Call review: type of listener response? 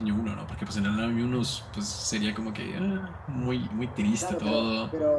taking over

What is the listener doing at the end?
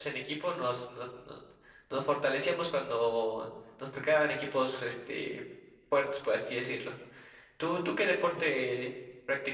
listening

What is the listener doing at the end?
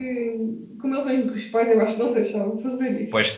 taking over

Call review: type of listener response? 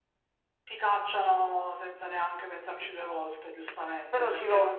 taking over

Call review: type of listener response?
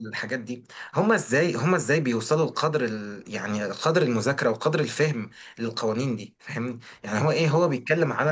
listening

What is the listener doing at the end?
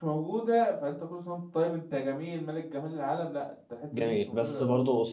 taking over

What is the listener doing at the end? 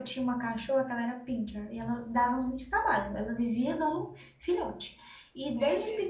listening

